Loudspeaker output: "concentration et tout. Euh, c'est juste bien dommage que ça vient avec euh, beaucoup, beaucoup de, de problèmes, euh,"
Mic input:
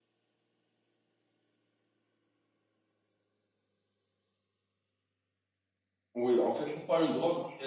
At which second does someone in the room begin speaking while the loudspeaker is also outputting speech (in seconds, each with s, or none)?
6.1 s